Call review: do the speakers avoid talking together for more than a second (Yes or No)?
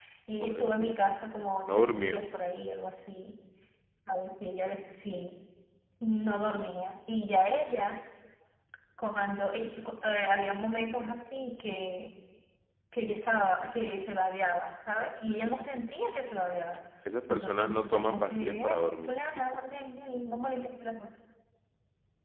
No